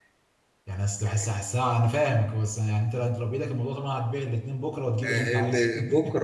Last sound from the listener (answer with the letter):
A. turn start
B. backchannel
A